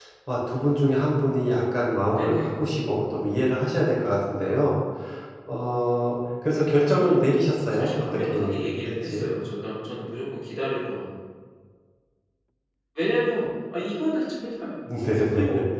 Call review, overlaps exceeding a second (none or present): present